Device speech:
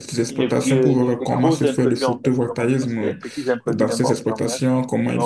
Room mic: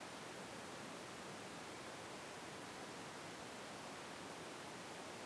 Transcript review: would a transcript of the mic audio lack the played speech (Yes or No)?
Yes